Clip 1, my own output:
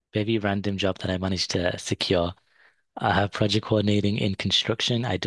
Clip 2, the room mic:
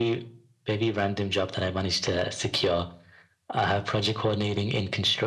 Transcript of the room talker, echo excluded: none

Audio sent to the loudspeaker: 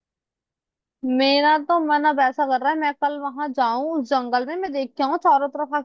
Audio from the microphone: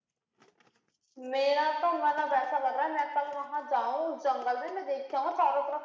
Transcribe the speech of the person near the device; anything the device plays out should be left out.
none

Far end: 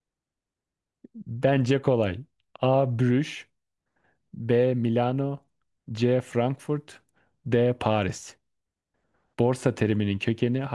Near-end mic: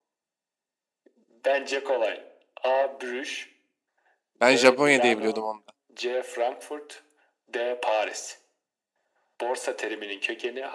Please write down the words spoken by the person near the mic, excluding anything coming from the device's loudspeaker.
ben Japonya diye biliyordum onu da.

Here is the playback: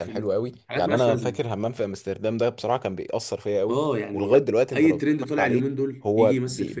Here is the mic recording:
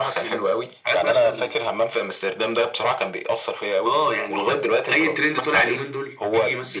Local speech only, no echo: none

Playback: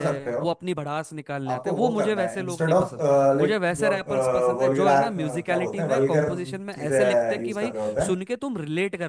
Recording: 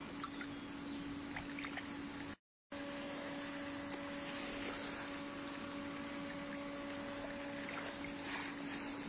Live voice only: none

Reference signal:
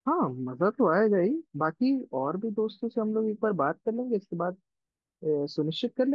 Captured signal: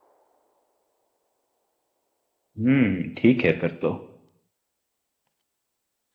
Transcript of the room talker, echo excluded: हम्म ठीक है फिर तो

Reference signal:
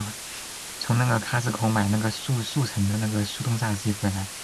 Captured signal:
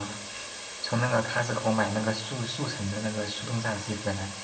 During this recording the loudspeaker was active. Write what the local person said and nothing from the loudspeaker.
none

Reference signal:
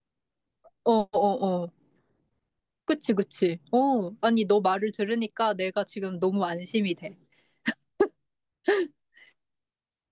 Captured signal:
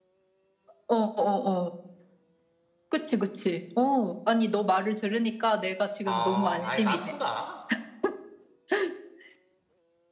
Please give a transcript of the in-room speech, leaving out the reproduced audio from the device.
아, 아예 만푼다?

